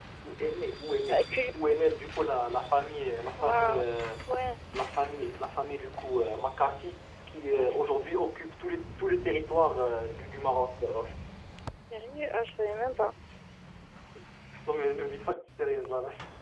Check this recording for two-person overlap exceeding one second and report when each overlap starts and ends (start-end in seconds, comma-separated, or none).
none